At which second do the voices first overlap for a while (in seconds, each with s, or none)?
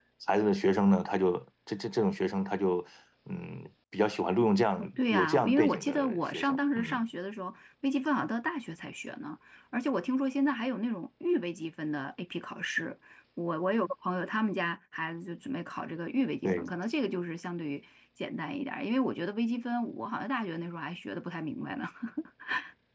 4.8 s